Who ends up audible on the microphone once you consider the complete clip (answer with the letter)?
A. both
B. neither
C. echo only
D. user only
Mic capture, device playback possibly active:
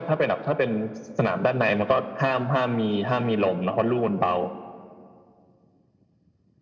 C